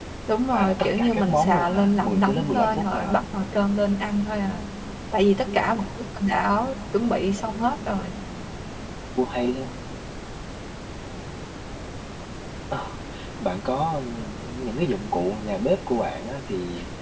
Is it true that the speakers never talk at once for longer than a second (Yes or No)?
No